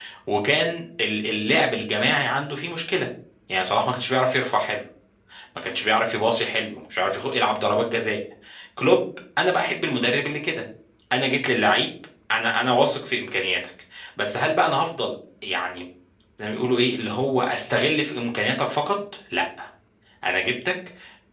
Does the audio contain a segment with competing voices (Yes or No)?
No